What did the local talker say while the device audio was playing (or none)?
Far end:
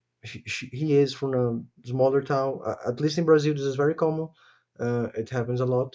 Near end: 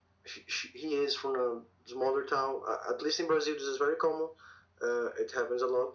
none